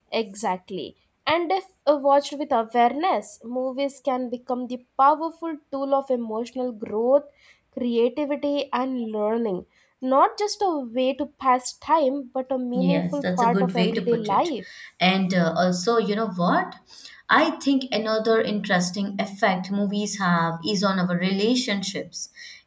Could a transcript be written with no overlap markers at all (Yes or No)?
No